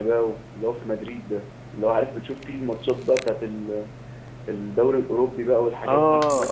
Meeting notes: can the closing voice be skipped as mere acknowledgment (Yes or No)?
No